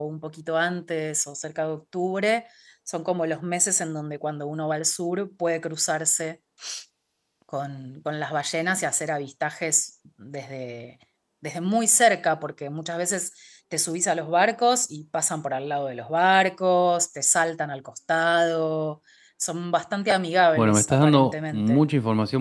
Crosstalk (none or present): present